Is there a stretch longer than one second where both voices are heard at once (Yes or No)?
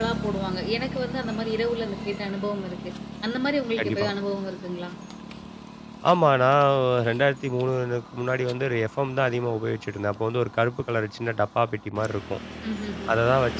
No